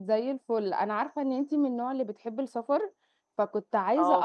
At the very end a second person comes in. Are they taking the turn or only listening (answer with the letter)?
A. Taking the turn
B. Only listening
B